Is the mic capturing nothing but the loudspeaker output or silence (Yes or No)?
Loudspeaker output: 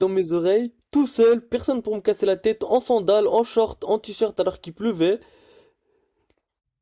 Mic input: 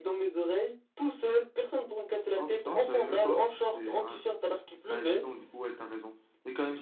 No